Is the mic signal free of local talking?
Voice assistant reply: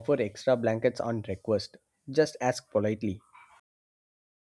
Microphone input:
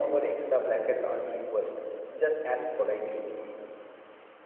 Yes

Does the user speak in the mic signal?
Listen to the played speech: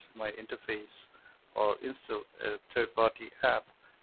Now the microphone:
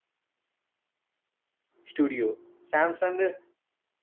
Yes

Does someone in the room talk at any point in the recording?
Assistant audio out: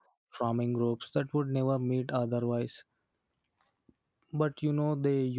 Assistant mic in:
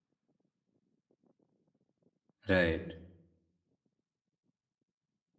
Yes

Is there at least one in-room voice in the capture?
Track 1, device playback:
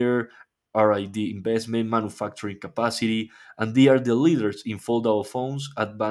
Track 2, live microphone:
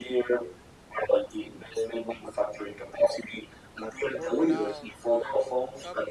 Yes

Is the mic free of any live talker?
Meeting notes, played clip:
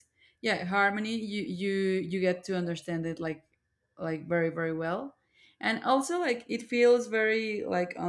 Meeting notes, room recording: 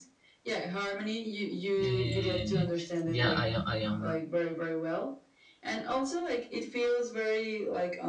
No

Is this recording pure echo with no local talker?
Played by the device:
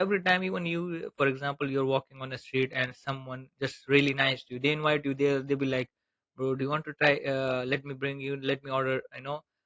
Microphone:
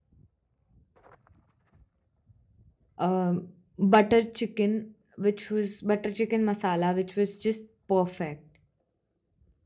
No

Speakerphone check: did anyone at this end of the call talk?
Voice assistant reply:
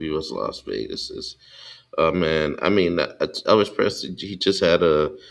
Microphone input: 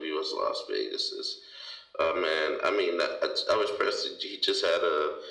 No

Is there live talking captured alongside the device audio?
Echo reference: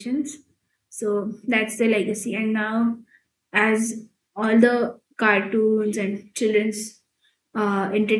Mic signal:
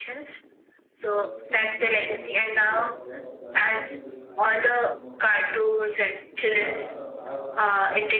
Yes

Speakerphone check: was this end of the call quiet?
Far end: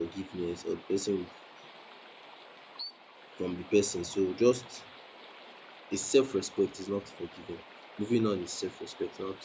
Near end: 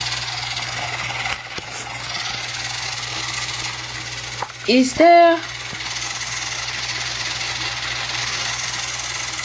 No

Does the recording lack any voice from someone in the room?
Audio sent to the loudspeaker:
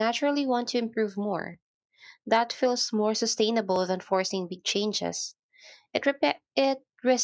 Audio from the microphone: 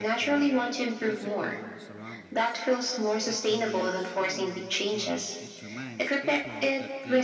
No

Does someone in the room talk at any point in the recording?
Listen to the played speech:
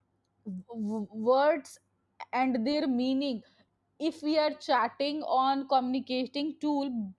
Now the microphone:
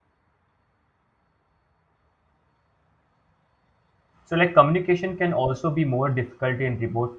Yes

